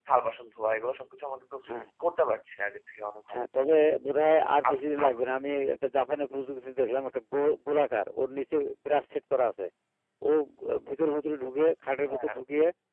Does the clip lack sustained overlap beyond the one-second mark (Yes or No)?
Yes